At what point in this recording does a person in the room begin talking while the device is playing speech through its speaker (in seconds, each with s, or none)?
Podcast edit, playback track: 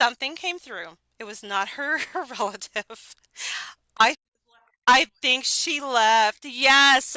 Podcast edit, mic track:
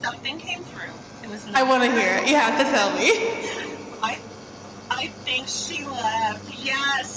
1.5 s